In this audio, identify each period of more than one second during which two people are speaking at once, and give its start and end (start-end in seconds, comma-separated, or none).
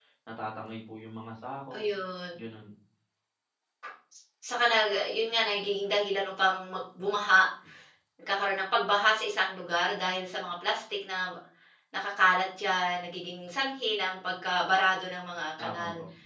none